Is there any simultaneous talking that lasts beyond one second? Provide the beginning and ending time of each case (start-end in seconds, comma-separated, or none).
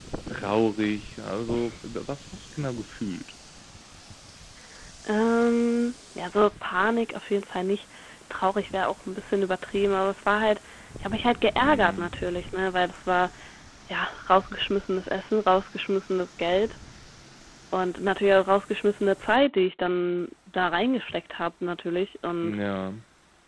none